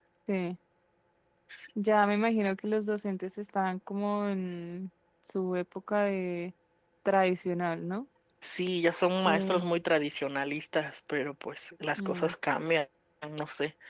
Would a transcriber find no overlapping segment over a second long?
Yes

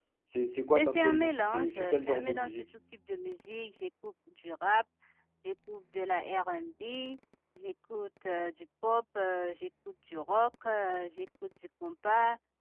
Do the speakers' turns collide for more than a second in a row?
Yes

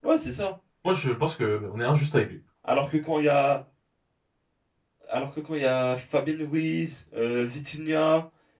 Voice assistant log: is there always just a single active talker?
Yes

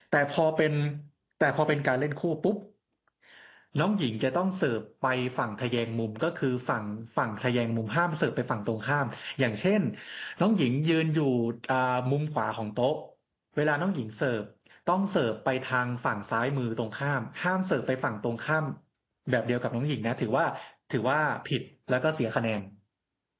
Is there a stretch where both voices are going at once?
No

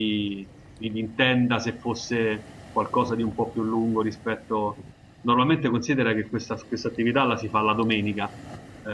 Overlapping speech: No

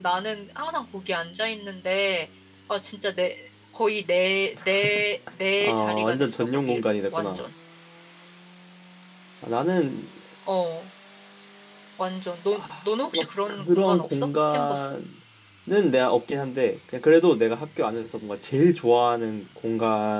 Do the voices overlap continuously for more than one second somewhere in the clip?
Yes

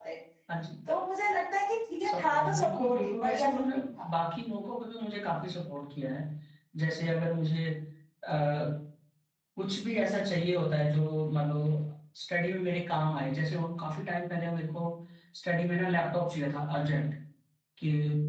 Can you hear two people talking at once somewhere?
Yes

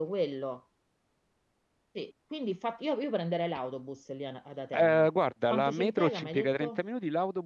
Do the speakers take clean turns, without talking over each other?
No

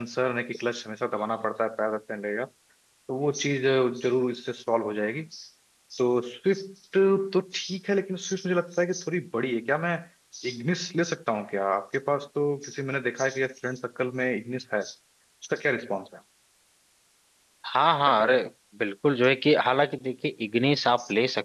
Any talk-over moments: No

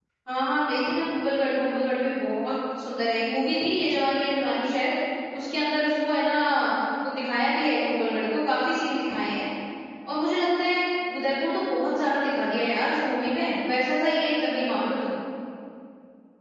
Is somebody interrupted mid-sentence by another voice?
No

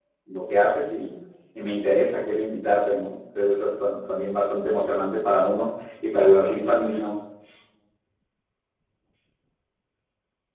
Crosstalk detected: No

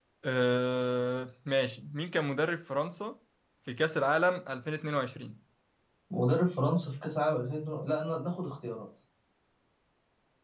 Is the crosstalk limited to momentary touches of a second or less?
Yes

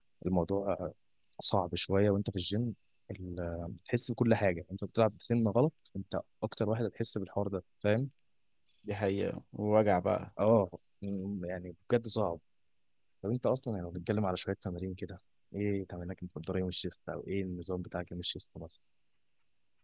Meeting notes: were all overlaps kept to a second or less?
Yes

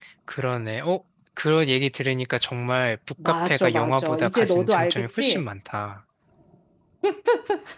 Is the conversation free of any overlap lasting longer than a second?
No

